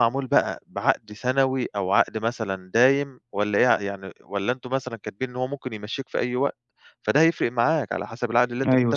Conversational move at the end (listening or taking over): taking over